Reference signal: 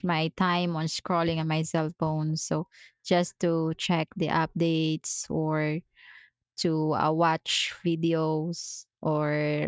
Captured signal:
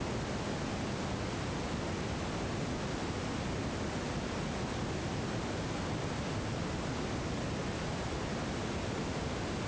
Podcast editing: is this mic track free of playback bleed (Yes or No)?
Yes